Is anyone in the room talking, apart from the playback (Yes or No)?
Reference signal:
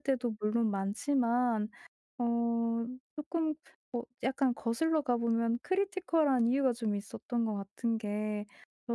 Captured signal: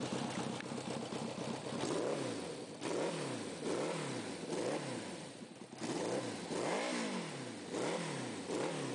No